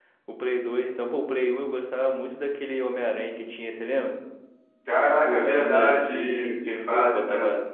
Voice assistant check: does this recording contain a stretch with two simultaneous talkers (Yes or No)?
Yes